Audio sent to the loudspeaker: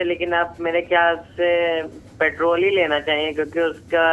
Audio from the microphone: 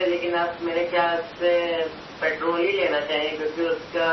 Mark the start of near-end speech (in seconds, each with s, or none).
none